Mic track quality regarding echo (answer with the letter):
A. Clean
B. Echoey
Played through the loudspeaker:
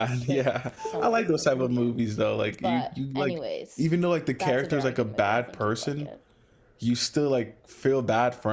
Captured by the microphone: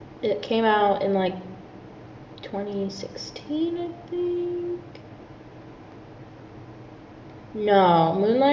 A